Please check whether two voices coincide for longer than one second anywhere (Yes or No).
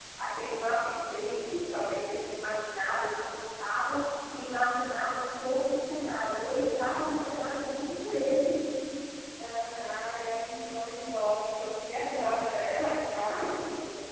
No